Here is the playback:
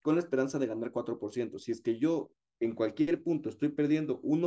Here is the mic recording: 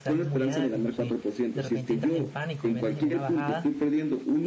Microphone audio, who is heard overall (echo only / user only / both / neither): both